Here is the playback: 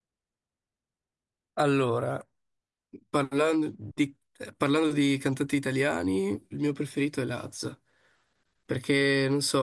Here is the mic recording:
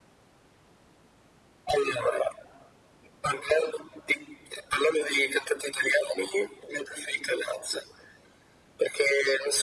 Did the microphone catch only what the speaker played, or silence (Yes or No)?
Yes